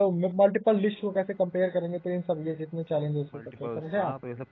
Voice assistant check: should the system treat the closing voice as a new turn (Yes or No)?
Yes